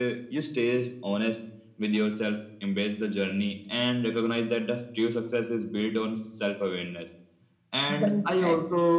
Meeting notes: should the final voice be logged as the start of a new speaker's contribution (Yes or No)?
No